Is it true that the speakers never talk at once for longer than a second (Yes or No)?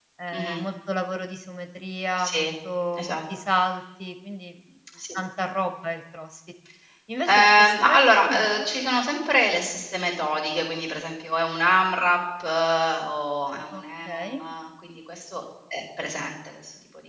No